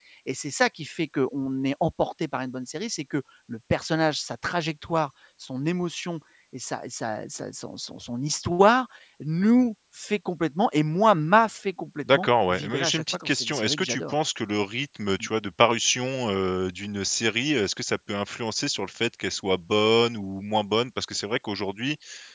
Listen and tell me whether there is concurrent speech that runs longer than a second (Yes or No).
Yes